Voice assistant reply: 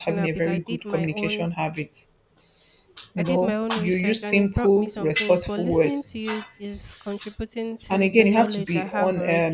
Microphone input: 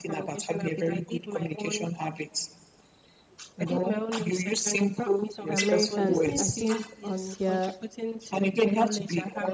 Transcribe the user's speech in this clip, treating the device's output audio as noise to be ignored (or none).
Americans, I think on their